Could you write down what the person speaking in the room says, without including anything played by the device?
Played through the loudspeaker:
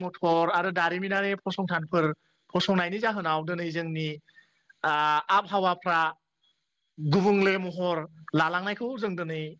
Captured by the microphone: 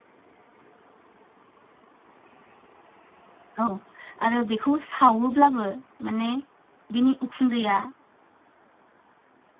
औ आरो बेखौ सावोब्लाबो माने बिनि उखुन्दैया

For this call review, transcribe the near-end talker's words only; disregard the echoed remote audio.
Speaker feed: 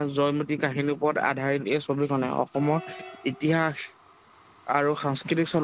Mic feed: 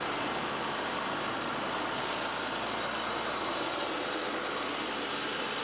none

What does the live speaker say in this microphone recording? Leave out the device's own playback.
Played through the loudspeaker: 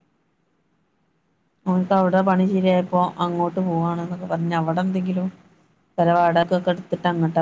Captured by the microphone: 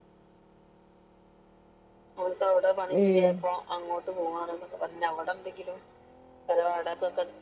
ഏഹ്

